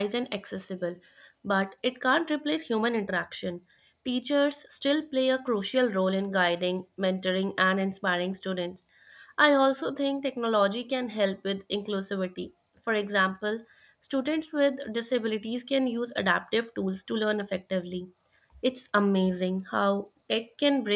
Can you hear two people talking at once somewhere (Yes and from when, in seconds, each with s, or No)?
No